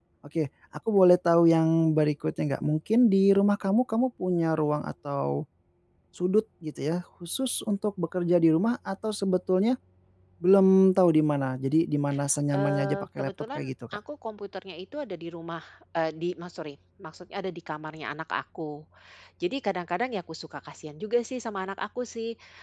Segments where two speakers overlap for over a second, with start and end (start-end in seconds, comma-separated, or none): 12.5-14.0